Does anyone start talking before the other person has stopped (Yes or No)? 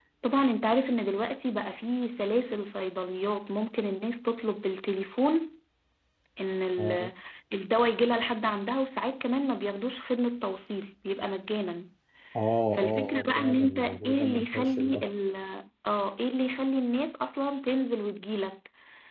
Yes